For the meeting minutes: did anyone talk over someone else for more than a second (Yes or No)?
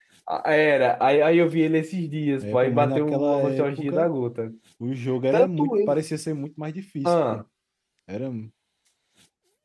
Yes